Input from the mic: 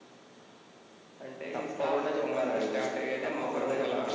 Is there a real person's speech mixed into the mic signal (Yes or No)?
No